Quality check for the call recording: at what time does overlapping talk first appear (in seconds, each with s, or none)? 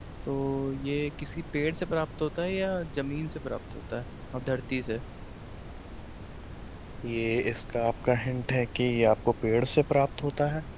none